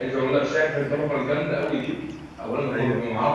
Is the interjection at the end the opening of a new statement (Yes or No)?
No